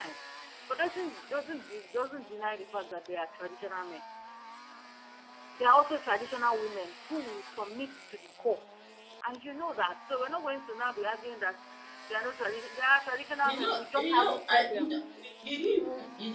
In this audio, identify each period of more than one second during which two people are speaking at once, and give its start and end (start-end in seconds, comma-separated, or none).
13.4-14.9